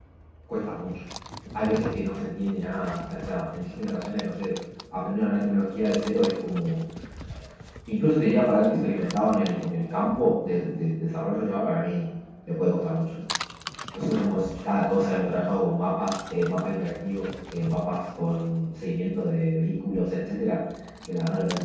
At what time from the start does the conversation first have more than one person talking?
none

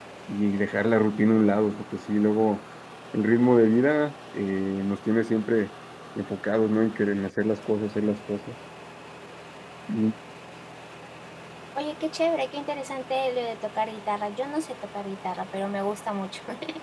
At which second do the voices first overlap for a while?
none

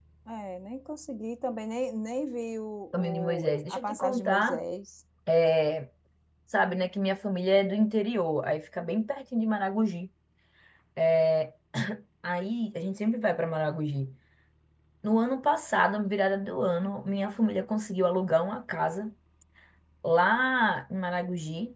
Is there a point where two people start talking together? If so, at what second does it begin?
2.9 s

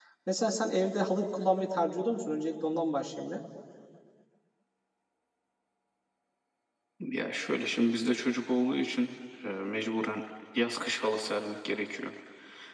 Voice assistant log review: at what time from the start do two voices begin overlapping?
none

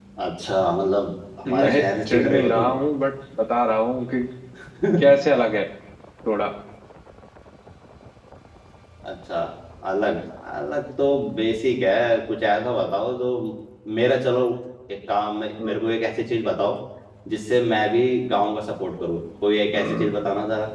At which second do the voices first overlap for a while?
1.5 s

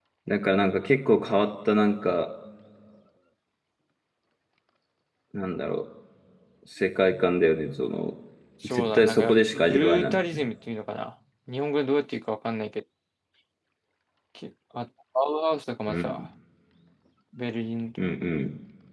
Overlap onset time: 8.7 s

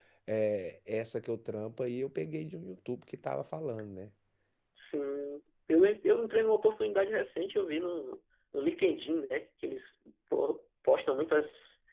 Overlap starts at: none

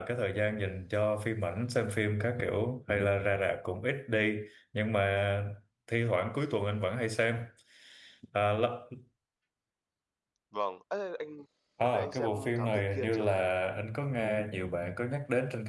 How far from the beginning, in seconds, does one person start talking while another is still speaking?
11.8 s

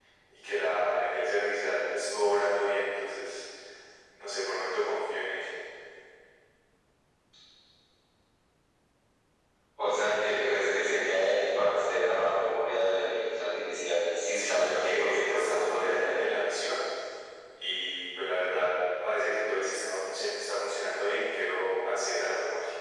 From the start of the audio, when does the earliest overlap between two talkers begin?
14.3 s

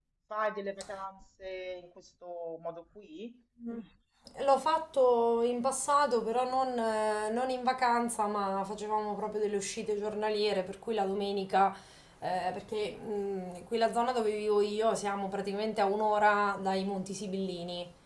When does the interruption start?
none

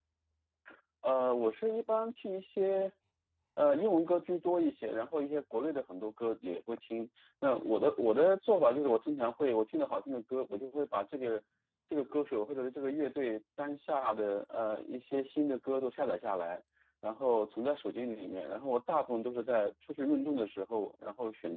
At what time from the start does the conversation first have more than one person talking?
none

